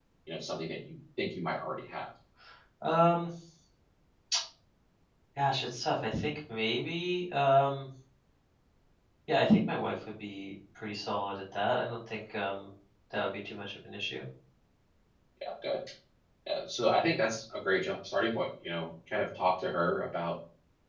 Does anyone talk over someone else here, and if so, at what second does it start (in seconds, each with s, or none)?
none